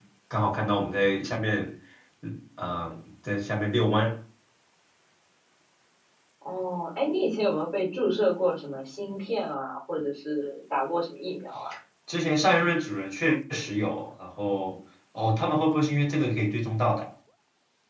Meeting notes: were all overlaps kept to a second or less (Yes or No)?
Yes